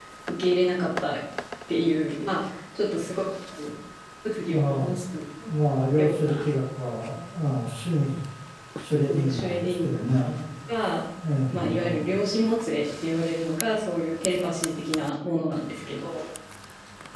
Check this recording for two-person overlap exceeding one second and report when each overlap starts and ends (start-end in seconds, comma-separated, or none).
9.1-10.3